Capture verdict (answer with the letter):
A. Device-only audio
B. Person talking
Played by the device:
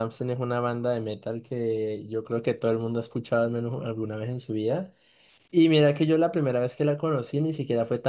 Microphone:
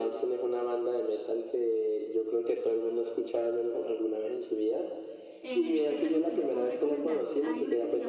B